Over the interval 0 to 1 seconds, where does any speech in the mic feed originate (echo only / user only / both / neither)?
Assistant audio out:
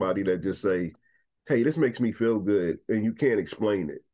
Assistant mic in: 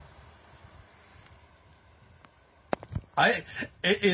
neither